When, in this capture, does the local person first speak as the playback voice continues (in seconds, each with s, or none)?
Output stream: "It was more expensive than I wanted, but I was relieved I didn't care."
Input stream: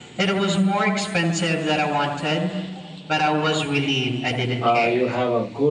4.6 s